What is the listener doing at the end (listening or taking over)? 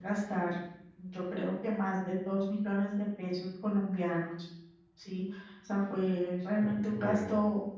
listening